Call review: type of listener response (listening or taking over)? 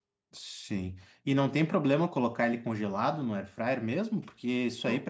listening